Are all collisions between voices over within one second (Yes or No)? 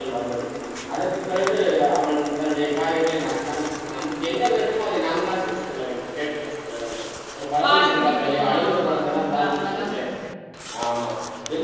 No